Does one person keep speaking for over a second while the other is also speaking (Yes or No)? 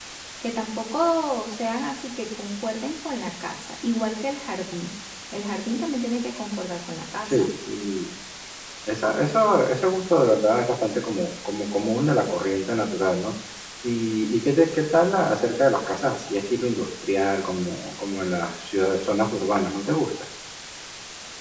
No